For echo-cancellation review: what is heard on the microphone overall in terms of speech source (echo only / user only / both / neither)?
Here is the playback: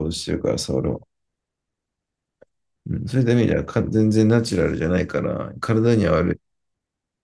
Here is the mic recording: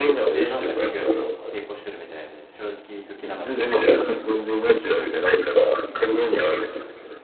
both